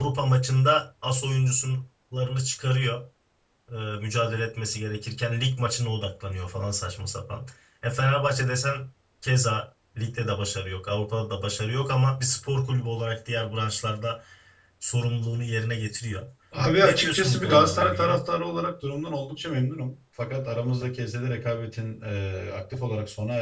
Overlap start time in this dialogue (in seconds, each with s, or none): 16.8 s